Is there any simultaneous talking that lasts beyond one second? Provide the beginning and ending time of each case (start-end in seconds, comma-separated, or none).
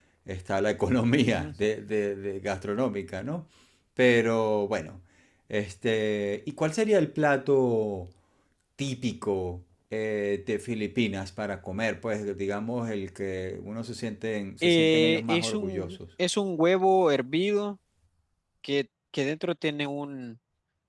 14.6-16.0